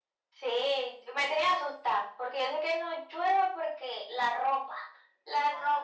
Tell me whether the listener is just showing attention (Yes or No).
No